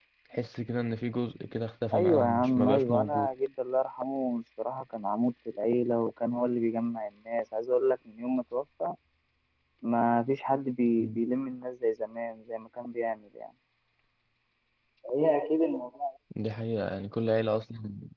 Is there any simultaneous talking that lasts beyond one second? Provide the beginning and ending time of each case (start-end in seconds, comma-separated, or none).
1.9-3.3